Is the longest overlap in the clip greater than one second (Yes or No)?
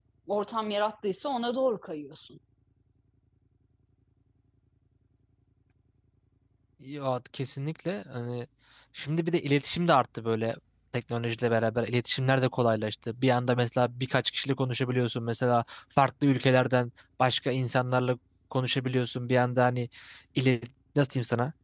No